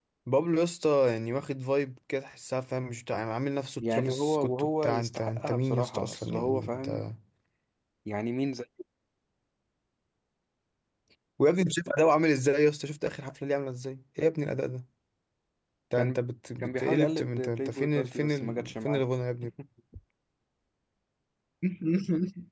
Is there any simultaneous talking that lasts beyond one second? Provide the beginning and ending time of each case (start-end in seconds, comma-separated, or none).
3.8-7.0, 16.6-19.0